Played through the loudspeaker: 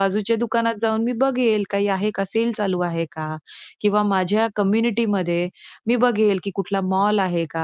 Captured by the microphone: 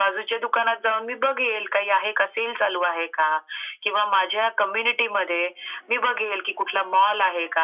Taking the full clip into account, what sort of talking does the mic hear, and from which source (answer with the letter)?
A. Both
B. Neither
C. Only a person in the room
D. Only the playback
D